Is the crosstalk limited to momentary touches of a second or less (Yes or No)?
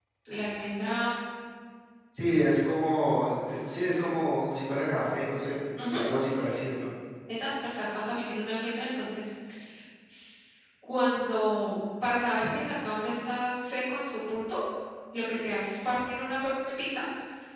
Yes